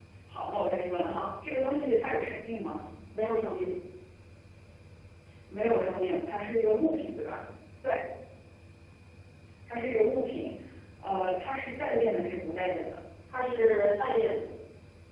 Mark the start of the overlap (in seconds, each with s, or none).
none